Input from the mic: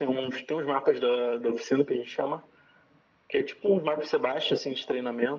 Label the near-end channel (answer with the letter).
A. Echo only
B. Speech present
A